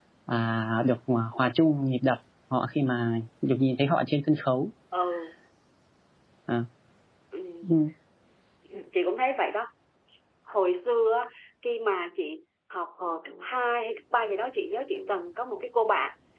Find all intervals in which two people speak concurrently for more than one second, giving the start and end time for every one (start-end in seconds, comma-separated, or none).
none